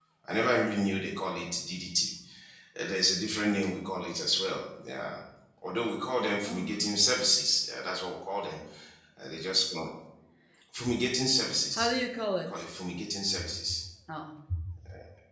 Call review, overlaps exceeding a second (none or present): none